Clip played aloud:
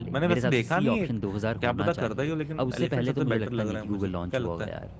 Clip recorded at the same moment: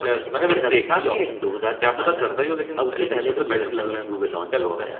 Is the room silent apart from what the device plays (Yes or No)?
Yes